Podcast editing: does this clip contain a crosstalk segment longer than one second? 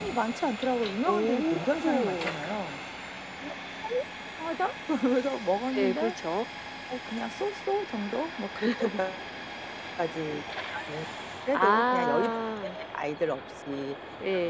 Yes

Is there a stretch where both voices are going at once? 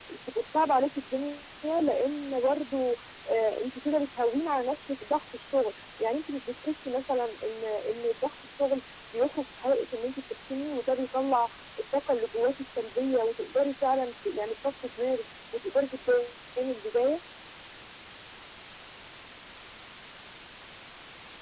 No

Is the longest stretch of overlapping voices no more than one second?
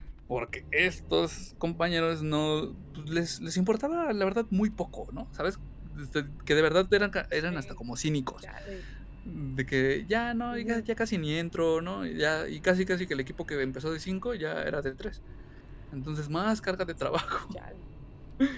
Yes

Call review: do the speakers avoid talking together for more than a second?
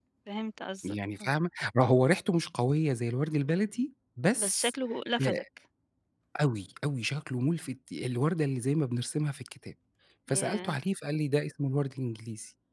Yes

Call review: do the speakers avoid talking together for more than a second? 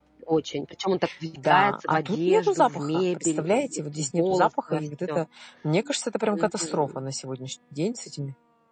No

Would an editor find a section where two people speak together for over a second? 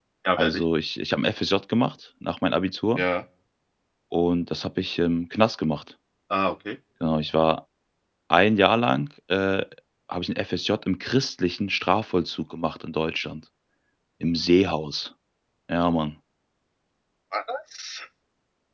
No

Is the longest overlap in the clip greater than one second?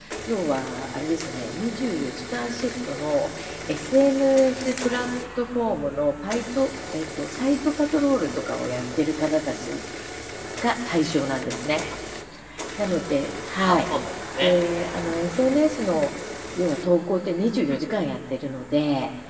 No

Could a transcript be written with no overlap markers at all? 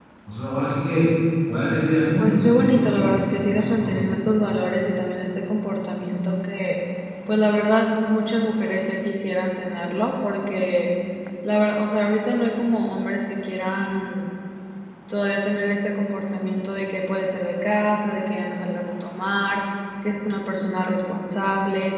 No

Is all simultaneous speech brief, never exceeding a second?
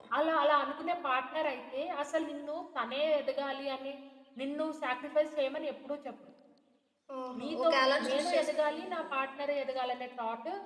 No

